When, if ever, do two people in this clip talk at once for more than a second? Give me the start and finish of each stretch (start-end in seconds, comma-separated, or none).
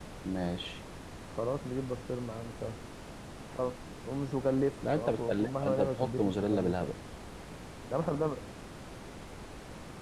4.8-6.9